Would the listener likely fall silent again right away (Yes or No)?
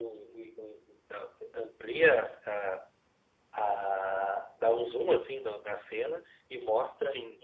Yes